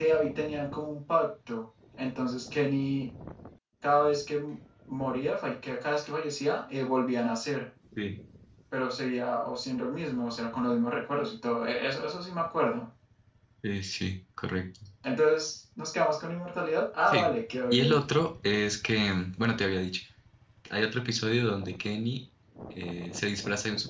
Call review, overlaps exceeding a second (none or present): none